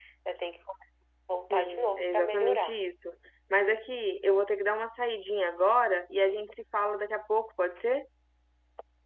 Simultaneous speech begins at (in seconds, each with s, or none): 1.5 s